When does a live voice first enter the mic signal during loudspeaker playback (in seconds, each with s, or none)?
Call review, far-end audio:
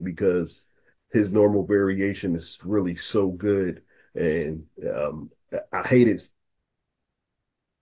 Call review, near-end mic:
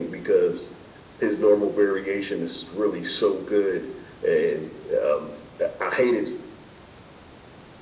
none